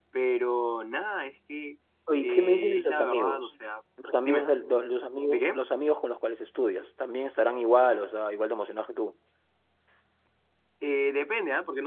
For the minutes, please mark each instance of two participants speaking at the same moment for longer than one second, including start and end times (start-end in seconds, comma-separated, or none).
2.2-3.5